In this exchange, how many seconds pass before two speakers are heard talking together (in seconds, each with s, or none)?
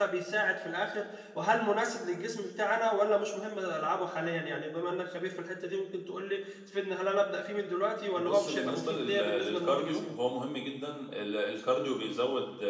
8.2 s